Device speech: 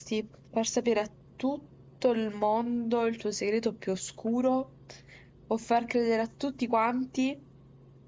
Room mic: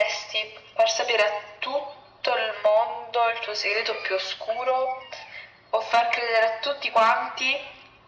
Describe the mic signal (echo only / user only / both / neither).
echo only